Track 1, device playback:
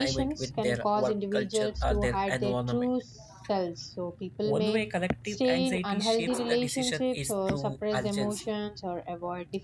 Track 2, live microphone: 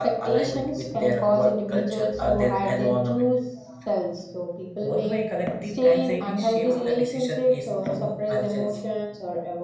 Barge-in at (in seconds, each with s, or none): none